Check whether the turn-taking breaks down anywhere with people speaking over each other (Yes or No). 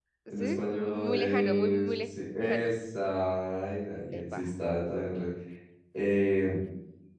Yes